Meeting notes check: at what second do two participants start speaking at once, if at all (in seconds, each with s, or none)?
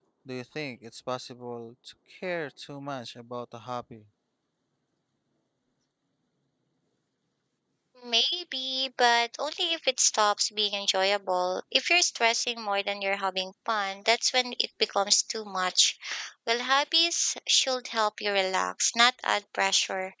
none